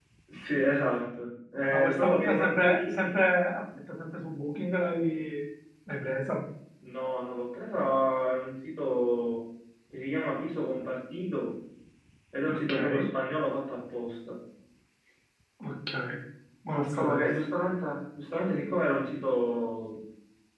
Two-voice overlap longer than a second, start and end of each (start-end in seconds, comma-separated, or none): 1.7-3.2